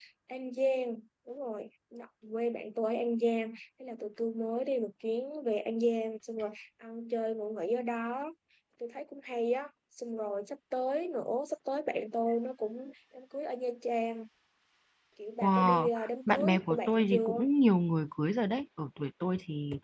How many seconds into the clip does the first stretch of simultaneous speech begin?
15 s

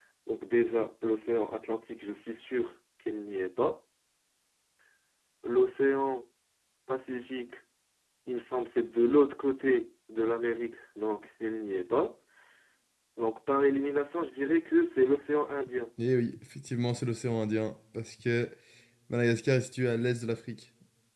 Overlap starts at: none

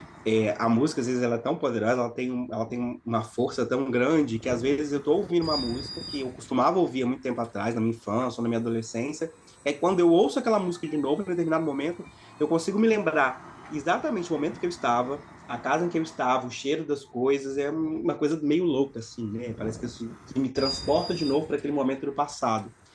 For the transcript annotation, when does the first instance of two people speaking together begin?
none

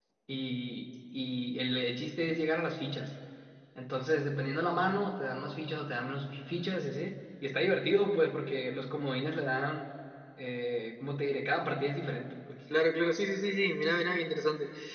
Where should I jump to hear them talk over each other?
none

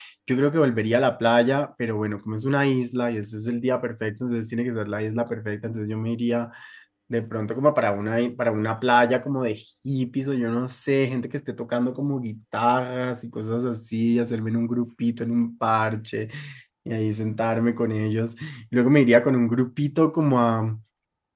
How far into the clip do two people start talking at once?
none

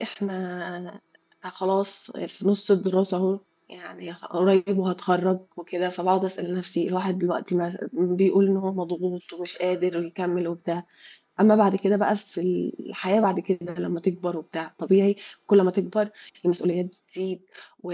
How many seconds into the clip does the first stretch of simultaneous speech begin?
none

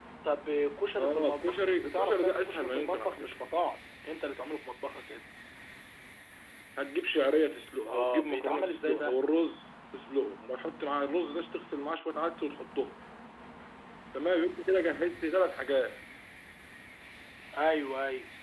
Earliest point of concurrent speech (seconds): 1 s

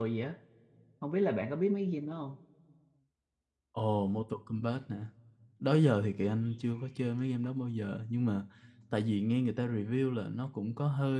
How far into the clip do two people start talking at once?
none

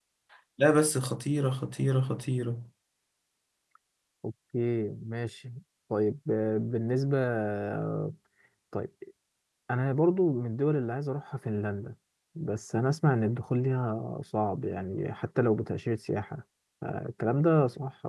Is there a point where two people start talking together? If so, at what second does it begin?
none

